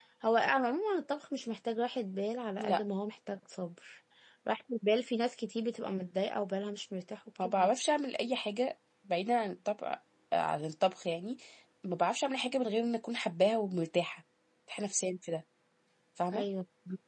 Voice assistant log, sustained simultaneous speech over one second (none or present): none